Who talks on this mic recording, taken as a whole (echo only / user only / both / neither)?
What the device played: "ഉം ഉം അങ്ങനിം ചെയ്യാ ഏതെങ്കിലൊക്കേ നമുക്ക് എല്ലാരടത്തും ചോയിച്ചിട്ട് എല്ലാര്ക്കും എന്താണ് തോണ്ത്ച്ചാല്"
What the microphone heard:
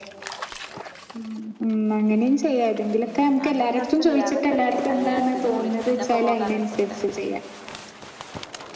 both